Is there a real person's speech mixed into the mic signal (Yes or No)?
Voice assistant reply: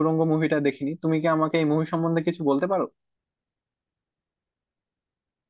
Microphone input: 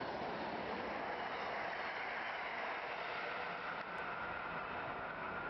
No